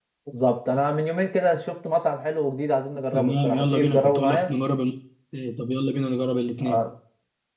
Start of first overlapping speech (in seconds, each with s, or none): 3.1 s